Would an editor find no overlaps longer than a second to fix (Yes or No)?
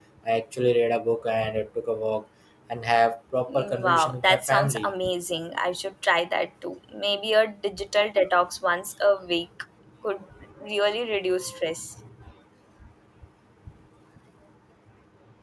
No